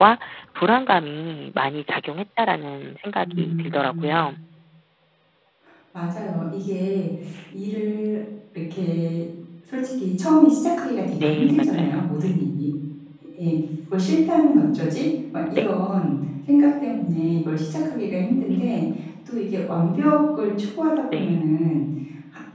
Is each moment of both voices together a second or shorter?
No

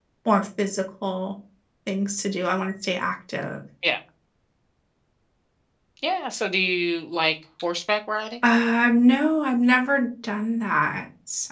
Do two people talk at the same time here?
No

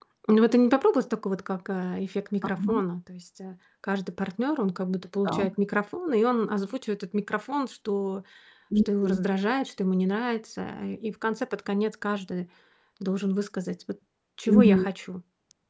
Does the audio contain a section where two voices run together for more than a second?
No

